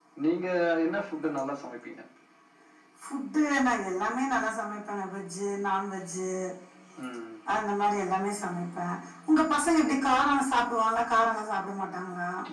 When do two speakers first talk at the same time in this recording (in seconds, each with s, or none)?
none